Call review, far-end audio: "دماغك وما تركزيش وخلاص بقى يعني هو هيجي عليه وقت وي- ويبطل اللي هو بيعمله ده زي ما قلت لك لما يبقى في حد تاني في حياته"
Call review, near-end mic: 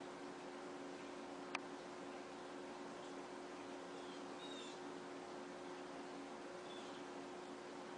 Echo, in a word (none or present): none